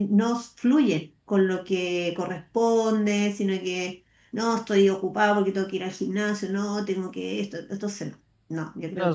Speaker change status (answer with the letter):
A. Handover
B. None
A